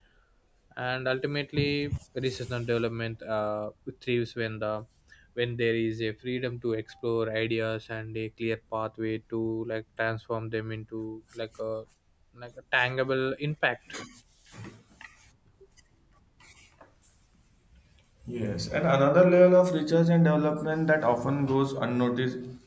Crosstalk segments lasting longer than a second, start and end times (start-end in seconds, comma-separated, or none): none